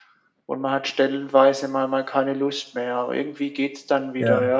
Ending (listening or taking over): listening